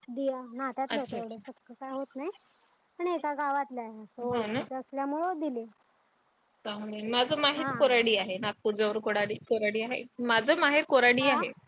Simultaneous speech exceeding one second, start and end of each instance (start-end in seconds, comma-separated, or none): none